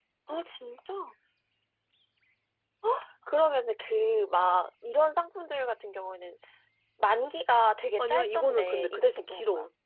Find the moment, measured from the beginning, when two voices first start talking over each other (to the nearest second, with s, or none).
8 s